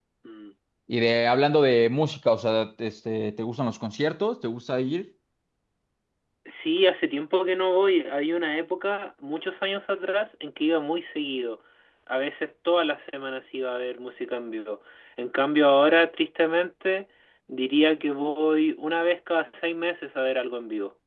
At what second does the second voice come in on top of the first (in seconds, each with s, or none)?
none